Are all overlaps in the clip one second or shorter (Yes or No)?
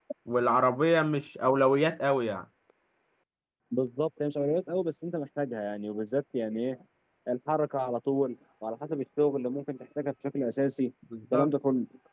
Yes